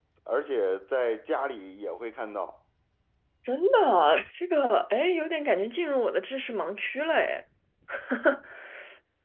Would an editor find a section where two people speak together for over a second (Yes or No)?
No